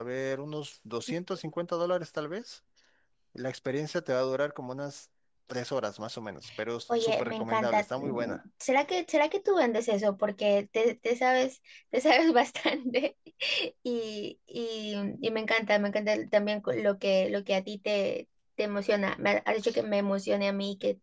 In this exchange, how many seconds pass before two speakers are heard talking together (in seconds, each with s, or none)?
7.0 s